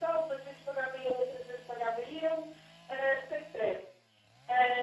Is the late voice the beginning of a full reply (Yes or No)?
No